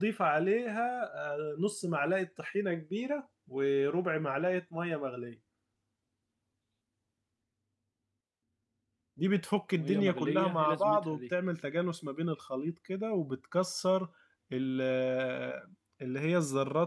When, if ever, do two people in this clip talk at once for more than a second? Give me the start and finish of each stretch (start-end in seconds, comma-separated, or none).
9.8-11.2